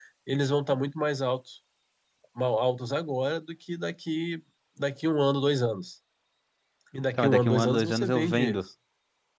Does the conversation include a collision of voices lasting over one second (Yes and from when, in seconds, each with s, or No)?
Yes, from 7.2 s